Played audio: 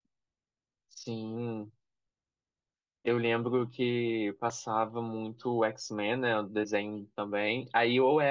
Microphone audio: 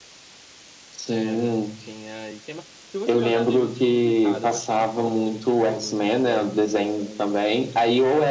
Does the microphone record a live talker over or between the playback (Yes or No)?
Yes